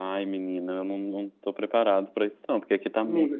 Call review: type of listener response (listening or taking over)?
taking over